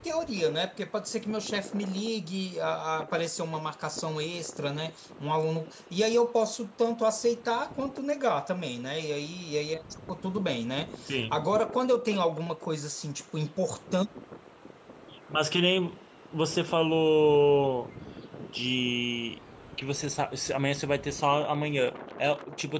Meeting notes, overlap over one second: none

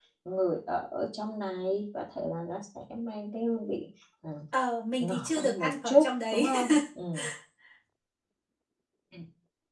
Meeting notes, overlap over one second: present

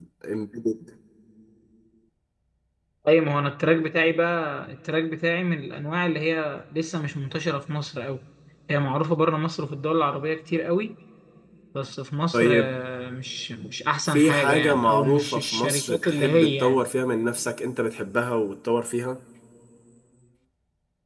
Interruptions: present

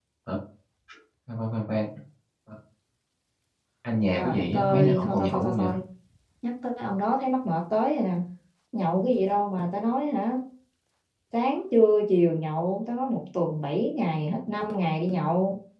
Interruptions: present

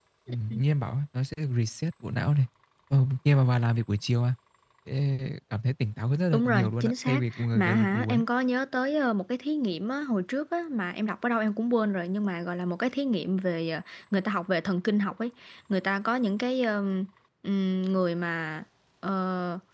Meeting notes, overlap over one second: present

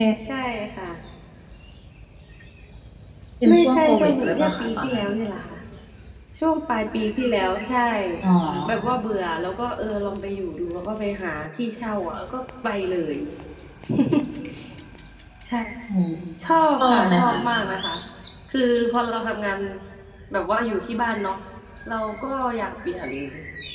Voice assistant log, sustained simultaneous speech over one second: present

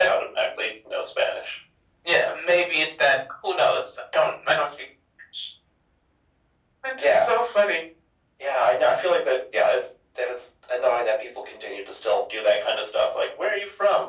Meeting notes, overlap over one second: none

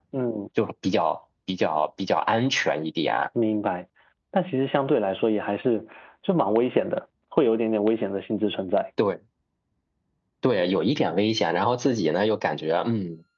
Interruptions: none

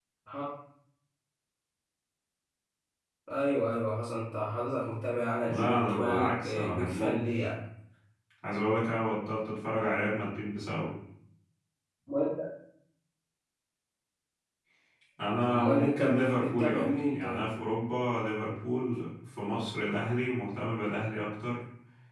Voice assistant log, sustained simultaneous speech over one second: present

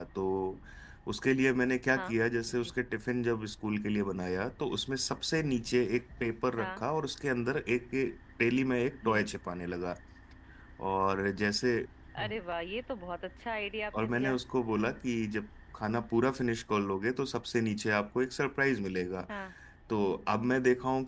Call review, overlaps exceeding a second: none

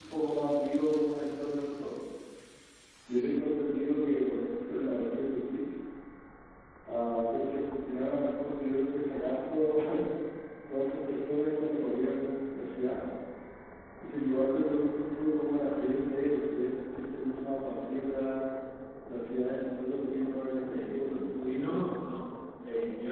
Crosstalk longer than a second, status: present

